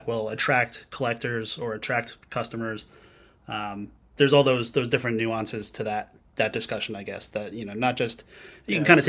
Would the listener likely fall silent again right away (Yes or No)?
Yes